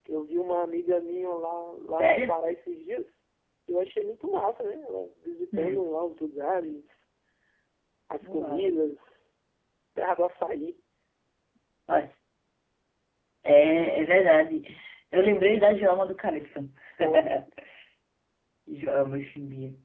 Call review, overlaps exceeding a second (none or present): none